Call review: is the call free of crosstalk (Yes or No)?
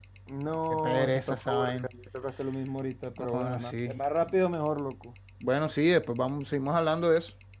No